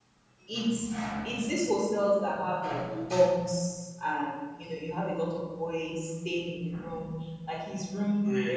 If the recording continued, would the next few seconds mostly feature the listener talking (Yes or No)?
No